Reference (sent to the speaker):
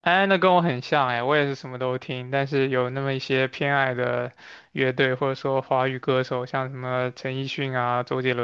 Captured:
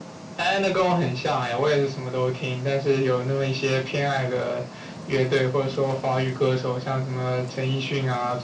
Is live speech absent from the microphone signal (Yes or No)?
Yes